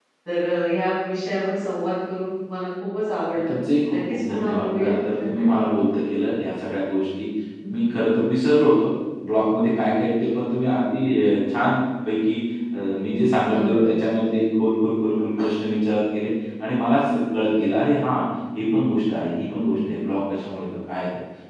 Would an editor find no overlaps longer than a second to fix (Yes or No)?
No